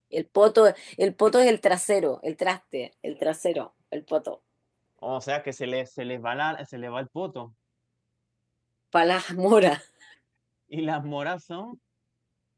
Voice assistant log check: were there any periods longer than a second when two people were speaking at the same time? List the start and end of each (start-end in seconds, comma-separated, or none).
none